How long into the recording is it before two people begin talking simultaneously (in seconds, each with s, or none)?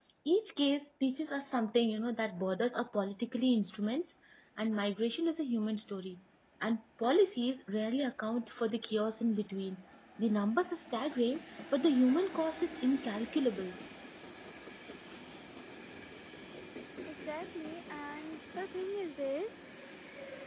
none